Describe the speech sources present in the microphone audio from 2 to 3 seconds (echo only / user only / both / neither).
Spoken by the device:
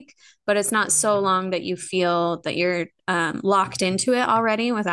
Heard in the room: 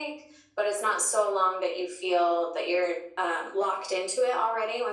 echo only